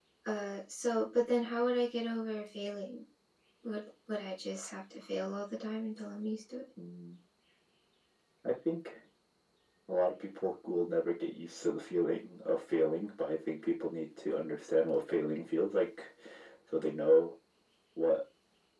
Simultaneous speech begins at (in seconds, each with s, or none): none